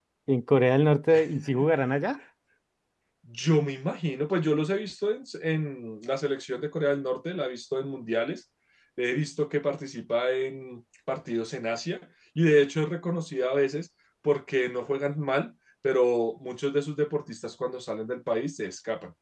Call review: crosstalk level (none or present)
none